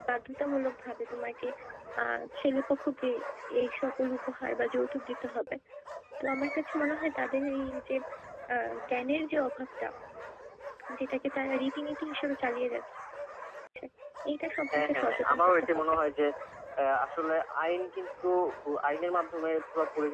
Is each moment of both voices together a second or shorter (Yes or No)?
No